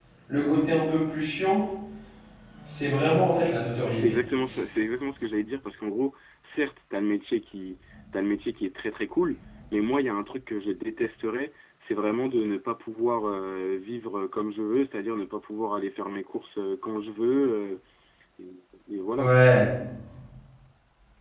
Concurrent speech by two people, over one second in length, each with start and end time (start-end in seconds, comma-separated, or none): none